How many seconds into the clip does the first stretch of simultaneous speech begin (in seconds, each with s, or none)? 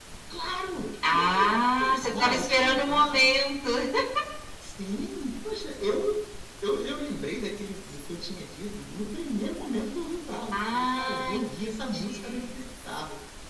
1.1 s